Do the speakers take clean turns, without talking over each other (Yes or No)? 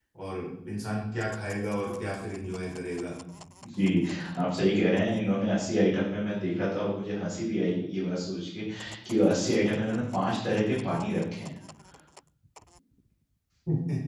Yes